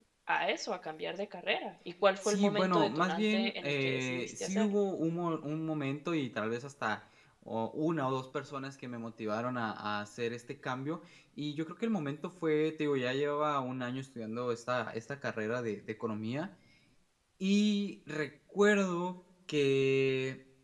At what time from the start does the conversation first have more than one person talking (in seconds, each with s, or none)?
2.2 s